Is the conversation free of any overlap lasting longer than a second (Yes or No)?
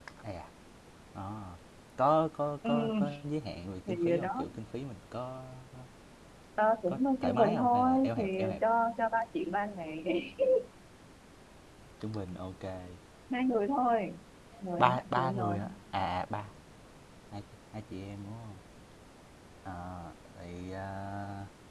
No